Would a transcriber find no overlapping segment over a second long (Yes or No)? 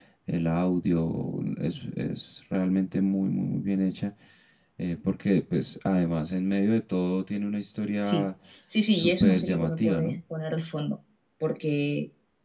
No